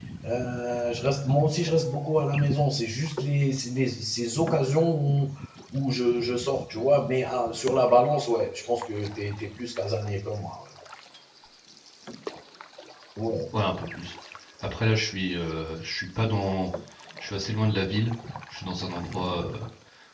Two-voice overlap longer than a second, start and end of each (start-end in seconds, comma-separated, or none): none